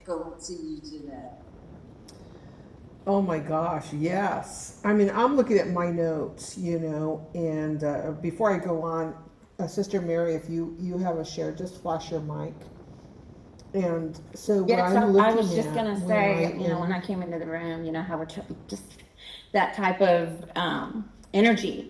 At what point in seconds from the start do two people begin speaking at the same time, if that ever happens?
14.7 s

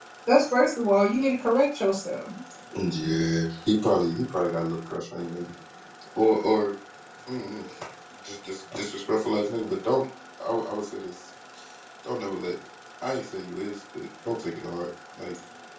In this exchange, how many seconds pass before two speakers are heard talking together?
none

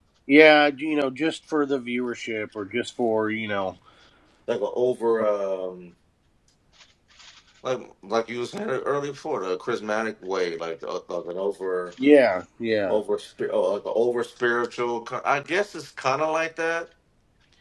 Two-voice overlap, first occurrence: none

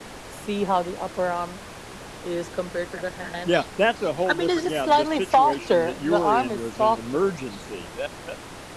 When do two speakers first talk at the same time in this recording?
4.3 s

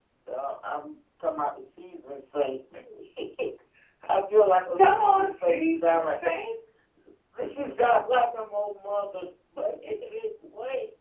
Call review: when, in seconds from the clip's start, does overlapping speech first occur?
4.8 s

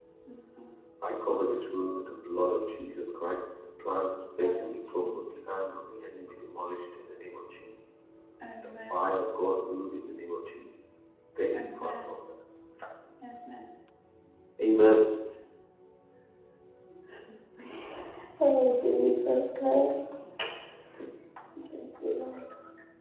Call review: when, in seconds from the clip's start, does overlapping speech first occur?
4.4 s

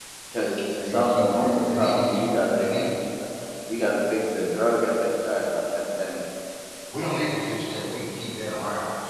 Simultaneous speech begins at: 0.8 s

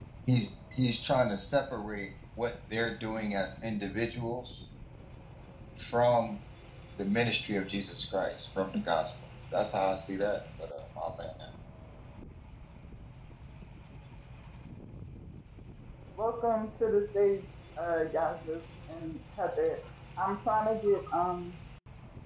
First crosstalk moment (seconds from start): none

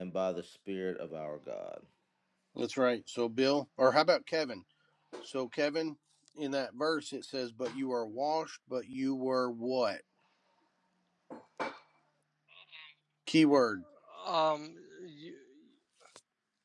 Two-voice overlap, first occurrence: none

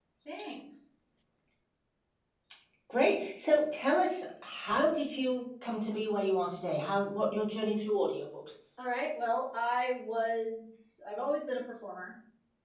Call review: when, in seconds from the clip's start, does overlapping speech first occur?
none

